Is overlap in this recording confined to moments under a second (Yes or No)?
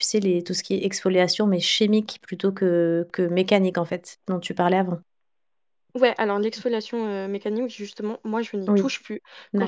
Yes